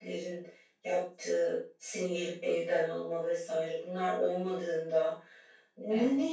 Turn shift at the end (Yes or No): No